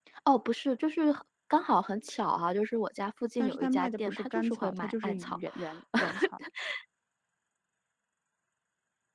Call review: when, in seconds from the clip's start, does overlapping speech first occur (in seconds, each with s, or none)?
3.4 s